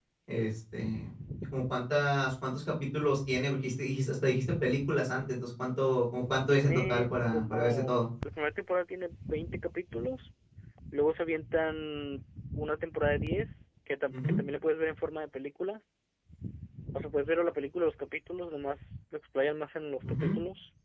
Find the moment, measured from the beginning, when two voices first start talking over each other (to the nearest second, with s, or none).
6 s